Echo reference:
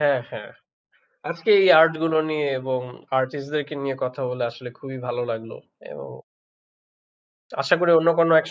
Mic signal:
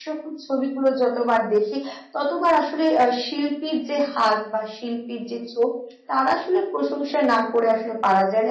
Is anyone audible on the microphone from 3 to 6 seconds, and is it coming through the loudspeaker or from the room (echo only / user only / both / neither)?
user only